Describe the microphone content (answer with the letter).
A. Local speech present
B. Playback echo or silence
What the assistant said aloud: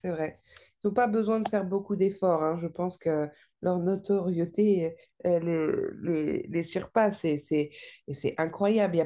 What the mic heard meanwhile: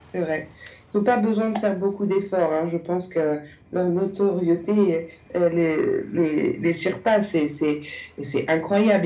B